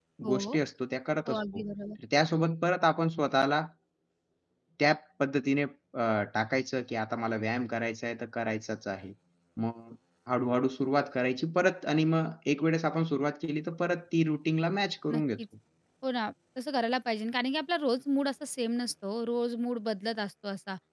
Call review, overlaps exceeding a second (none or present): none